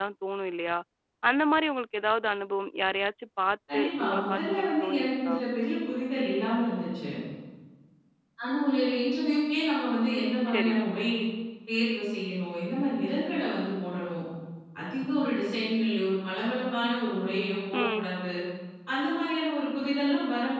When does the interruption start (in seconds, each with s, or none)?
3.7 s